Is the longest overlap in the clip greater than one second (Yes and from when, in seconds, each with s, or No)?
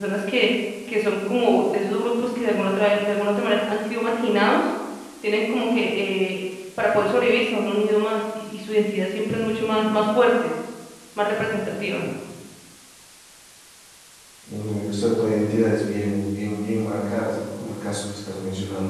No